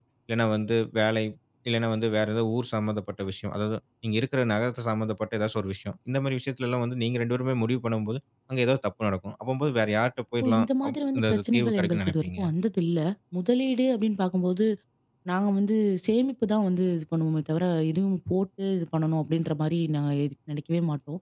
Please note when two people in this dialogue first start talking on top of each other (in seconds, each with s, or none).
10.4 s